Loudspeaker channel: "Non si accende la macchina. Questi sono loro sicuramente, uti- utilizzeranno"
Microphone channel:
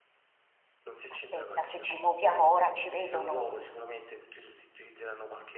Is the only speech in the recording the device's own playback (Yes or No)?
No